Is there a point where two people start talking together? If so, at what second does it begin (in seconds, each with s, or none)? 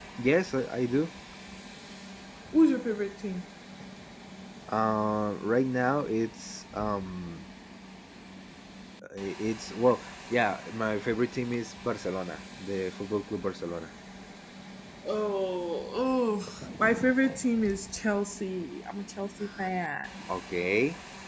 none